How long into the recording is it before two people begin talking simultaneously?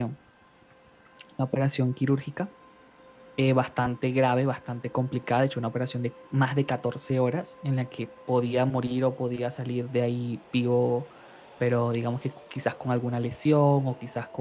none

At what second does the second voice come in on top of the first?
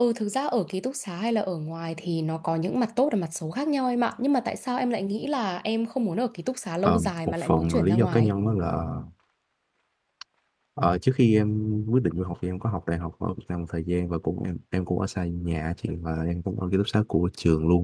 6.8 s

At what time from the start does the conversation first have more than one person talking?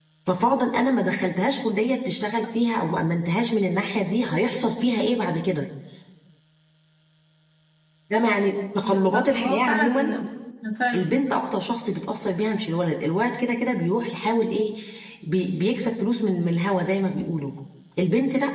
8.8 s

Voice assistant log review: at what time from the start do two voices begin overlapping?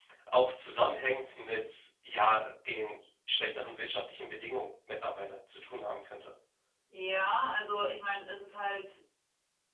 none

